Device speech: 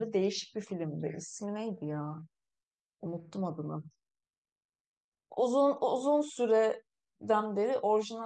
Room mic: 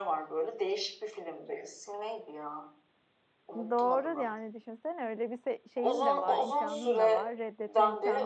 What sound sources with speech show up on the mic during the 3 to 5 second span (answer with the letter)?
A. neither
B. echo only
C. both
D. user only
C